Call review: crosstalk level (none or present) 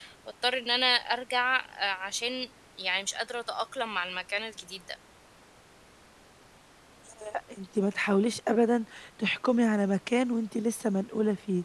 none